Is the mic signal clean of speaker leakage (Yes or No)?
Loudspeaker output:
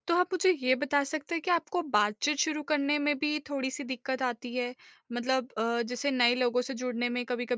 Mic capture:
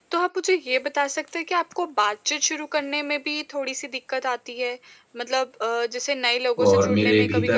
No